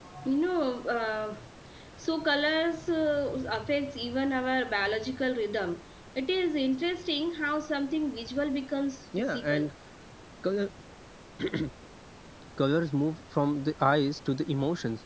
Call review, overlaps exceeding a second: none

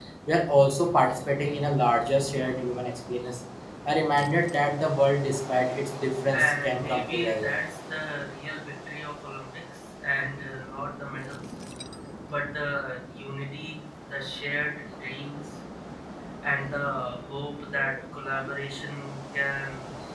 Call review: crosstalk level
present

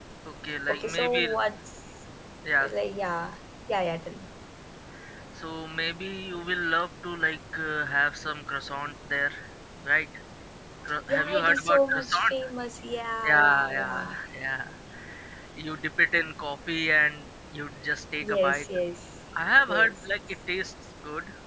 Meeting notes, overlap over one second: present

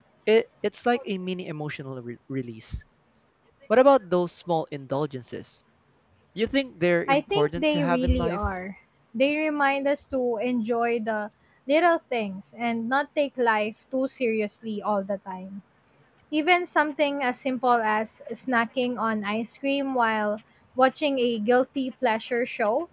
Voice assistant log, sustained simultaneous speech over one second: present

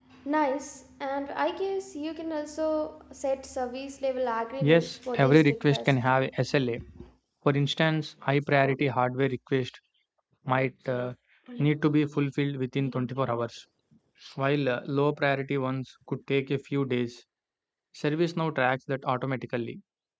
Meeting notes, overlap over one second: present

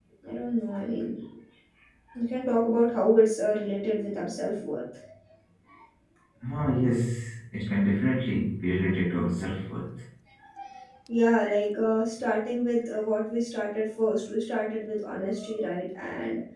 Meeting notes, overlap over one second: none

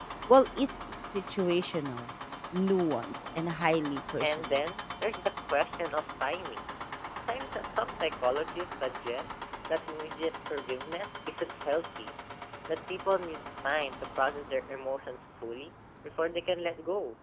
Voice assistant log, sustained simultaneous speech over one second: none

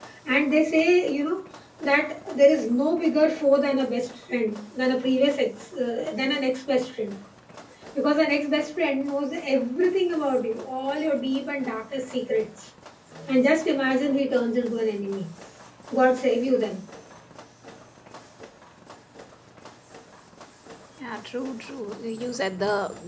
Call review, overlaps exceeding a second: none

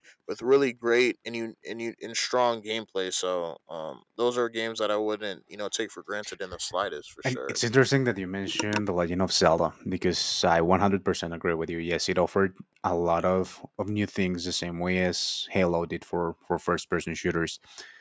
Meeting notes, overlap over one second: none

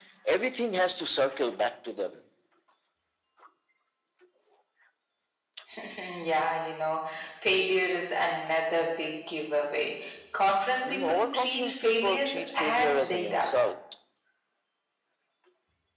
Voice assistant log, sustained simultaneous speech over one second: present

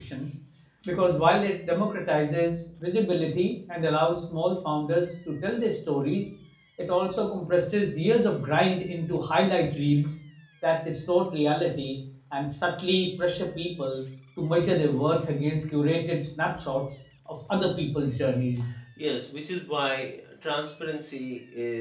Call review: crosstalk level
none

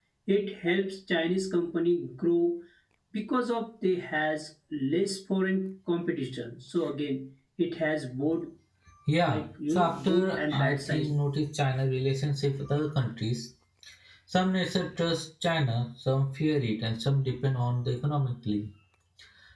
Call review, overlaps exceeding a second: present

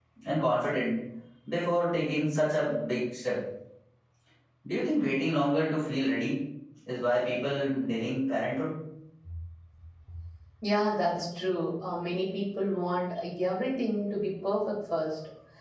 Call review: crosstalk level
none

